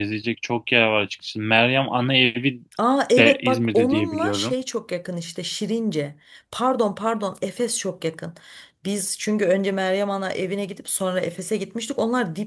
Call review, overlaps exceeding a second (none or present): present